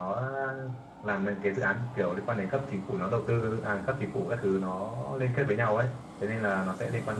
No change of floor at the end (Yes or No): Yes